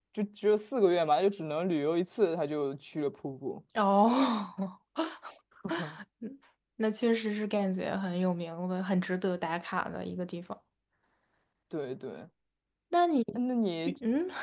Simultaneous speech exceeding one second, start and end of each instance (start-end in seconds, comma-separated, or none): none